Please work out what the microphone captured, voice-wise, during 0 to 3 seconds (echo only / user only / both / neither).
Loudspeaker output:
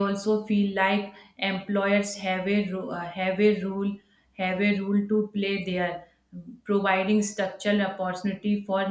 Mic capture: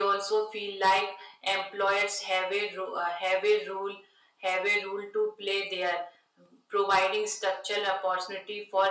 echo only